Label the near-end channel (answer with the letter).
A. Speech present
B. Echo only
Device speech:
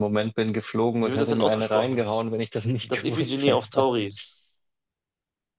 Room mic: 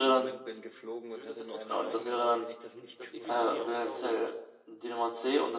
A